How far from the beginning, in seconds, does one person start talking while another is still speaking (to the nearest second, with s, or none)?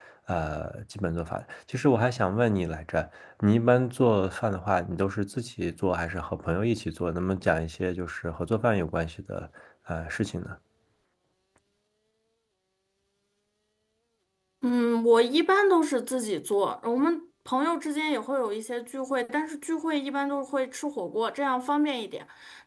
none